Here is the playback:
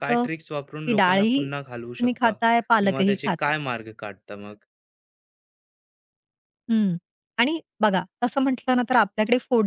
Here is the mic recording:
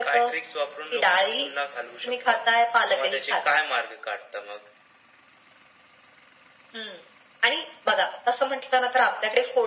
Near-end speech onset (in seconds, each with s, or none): none